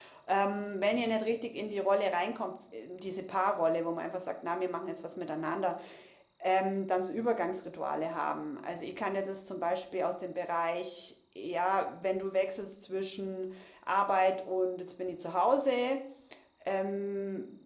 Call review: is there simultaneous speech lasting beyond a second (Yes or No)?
No